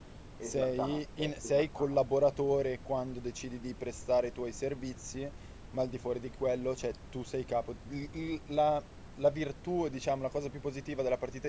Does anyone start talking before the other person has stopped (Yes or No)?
Yes